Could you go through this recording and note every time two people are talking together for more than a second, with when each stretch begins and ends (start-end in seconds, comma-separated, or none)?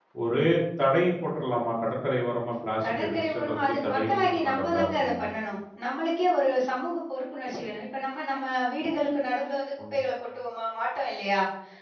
2.8-5.2